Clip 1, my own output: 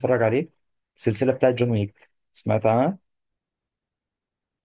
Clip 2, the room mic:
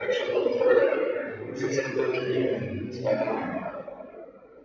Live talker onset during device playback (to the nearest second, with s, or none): 1 s